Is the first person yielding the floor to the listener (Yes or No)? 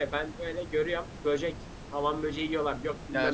Yes